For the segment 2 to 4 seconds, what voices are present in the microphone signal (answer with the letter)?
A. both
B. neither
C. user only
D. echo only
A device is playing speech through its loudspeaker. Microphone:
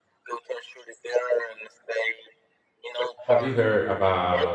A